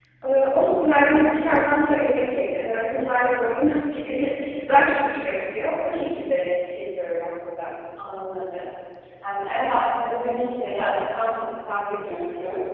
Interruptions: none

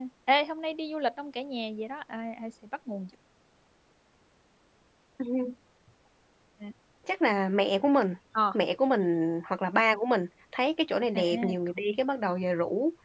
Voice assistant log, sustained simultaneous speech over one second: none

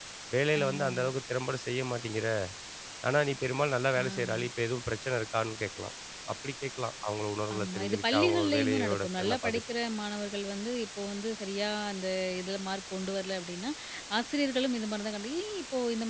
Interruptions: present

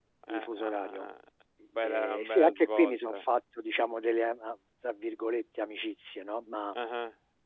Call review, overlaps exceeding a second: present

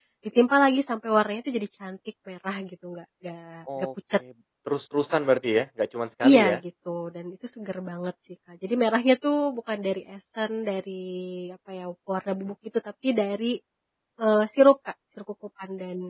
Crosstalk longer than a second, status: none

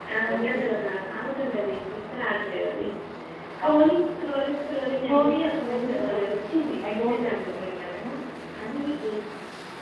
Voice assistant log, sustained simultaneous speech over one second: present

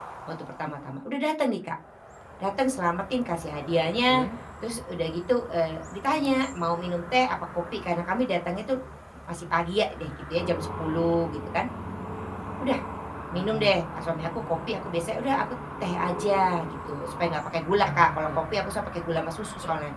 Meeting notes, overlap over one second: none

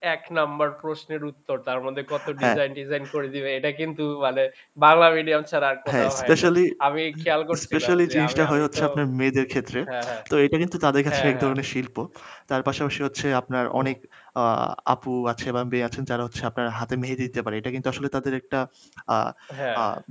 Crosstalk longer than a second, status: present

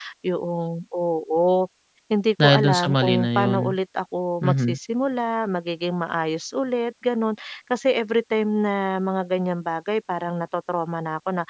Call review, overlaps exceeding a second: present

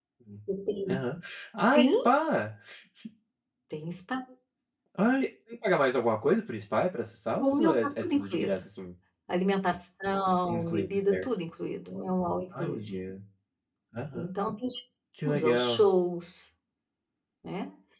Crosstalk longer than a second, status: present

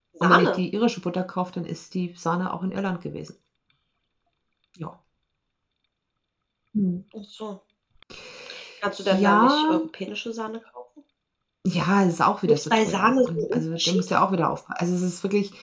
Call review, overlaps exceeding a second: present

